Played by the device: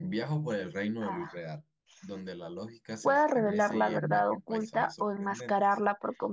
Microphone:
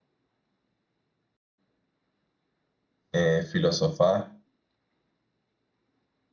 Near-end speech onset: 3 s

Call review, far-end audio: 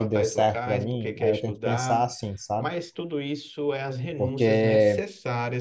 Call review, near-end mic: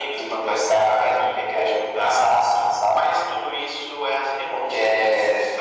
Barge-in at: none

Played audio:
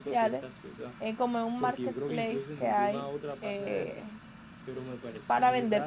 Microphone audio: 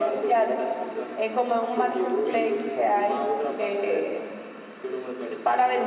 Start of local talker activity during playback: none

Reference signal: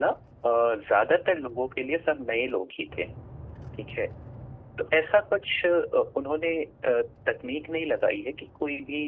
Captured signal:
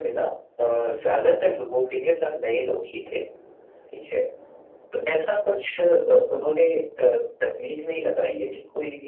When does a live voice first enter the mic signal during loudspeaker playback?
none

